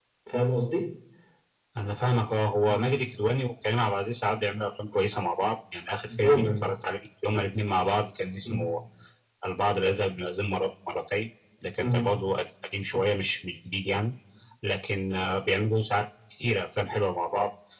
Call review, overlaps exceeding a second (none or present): none